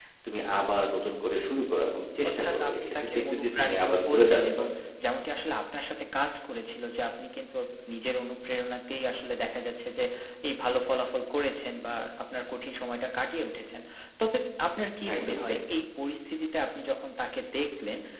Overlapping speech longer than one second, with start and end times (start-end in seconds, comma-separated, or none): 2.3-4.7